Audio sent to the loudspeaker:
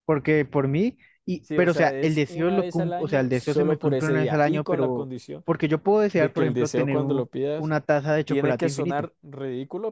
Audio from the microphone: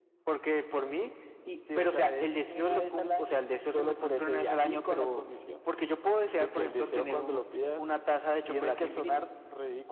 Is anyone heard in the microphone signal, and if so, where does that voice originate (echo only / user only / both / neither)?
echo only